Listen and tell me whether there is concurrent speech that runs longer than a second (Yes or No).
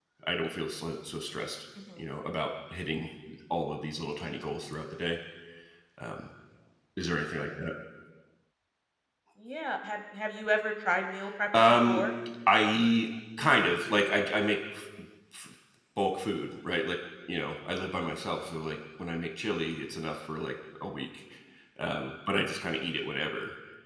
No